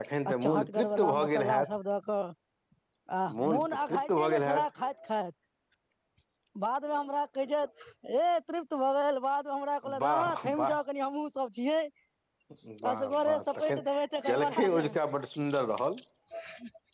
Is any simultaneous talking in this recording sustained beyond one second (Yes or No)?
Yes